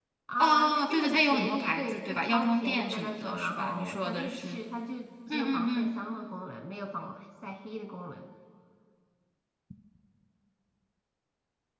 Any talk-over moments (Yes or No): Yes